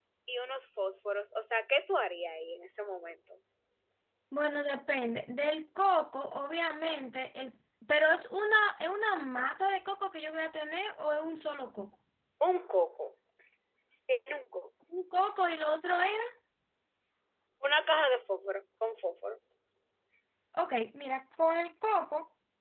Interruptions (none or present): none